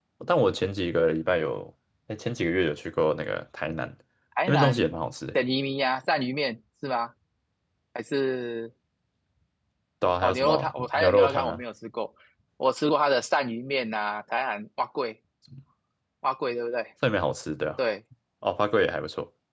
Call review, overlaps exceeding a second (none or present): present